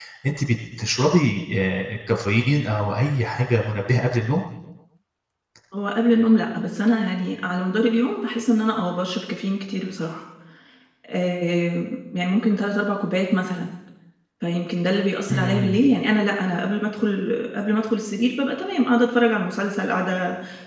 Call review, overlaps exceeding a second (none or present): none